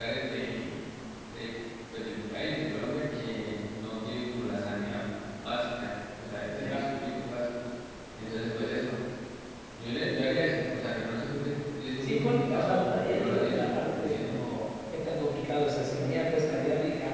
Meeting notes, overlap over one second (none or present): present